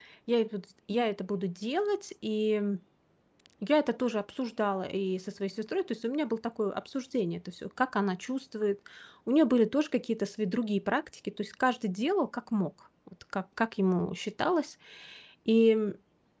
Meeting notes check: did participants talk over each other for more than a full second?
No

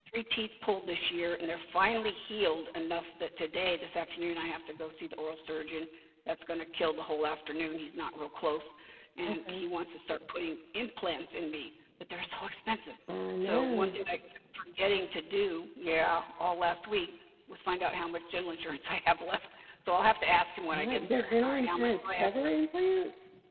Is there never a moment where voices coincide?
No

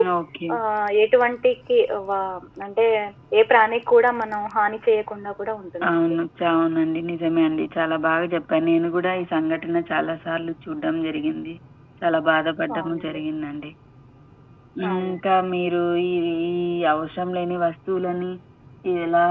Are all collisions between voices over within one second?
Yes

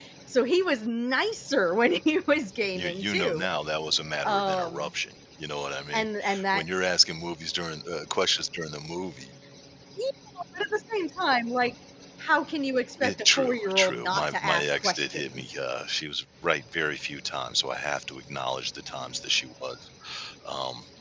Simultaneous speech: Yes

